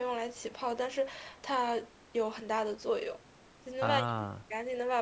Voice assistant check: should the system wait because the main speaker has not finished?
Yes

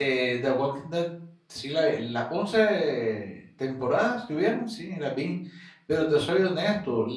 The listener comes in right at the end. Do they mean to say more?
No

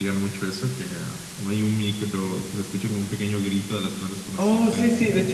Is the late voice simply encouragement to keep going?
No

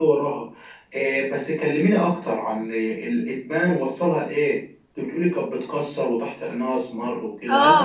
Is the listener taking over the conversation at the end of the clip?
Yes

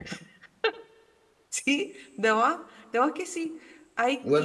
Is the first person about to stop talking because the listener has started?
Yes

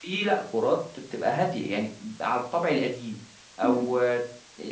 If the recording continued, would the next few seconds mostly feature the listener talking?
No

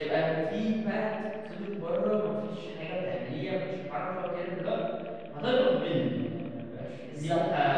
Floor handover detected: No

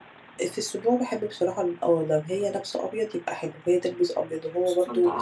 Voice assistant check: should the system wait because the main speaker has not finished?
Yes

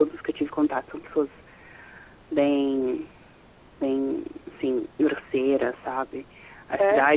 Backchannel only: Yes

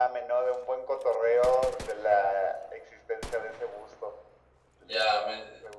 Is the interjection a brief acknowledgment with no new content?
No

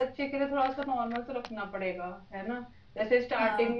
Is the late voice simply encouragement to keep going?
Yes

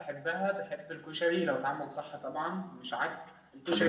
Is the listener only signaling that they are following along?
No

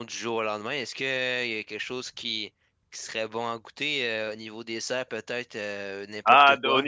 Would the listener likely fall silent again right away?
No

